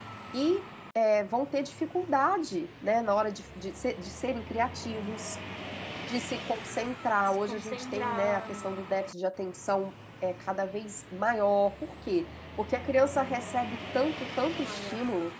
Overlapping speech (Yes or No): Yes